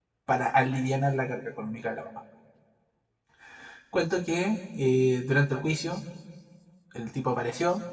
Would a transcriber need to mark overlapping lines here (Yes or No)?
No